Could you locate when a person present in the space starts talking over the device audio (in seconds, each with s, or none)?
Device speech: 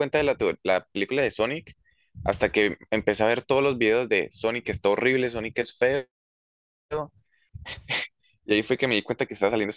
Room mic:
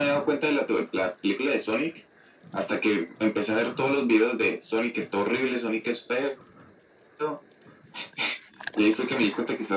none